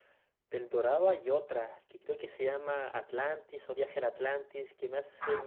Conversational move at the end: taking over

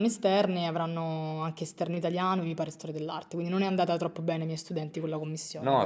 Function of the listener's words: taking over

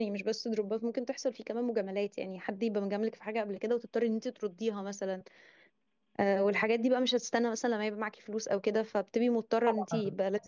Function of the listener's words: taking over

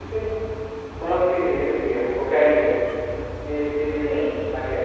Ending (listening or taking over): taking over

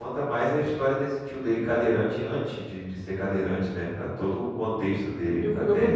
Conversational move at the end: taking over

